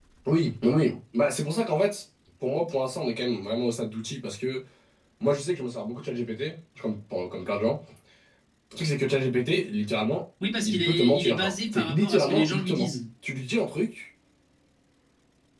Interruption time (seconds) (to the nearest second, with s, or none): 10 s